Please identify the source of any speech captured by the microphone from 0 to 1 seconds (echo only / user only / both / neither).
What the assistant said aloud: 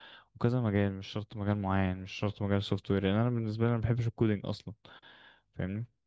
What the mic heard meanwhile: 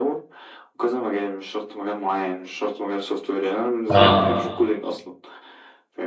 echo only